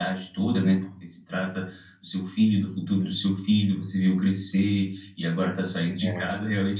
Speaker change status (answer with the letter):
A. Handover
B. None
B